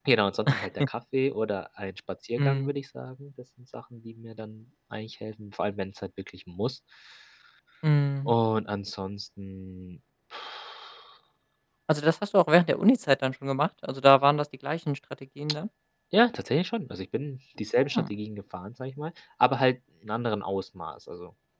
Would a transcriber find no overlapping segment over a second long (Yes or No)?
Yes